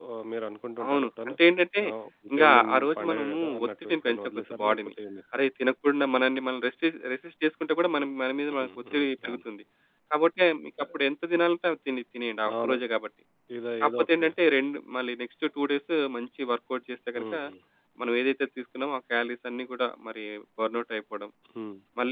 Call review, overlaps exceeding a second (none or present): present